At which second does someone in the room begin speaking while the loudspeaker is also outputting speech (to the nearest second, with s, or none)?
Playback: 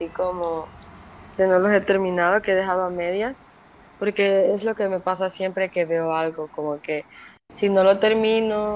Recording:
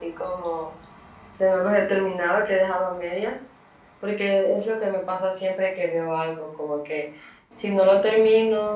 none